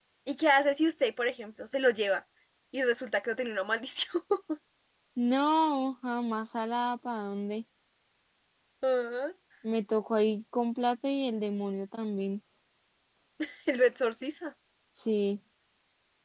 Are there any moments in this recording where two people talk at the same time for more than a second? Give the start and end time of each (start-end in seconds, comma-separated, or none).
none